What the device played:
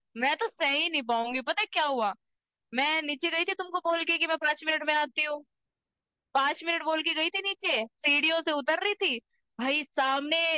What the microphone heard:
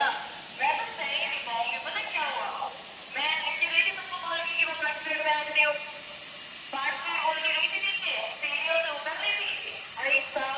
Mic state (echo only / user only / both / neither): echo only